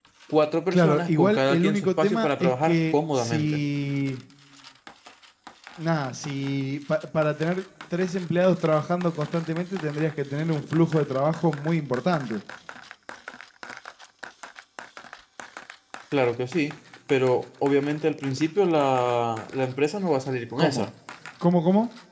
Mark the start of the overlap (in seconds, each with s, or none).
0.7 s